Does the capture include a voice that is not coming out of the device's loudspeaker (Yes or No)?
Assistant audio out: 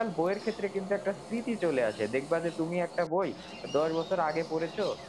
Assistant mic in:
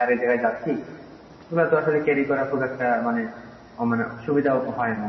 Yes